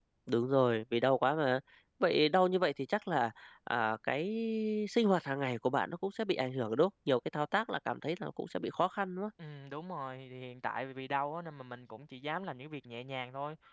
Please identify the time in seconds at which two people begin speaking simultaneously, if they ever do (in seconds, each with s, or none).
none